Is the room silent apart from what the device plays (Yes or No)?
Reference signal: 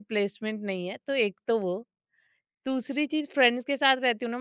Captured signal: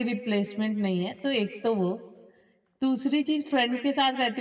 Yes